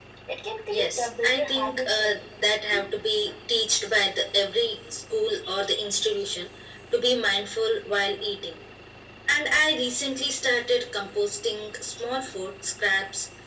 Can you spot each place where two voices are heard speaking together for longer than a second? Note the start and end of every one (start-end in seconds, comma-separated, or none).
0.7-2.2